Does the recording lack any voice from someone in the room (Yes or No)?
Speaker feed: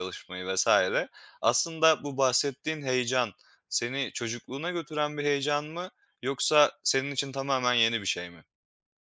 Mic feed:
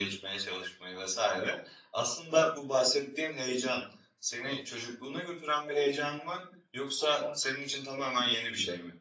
Yes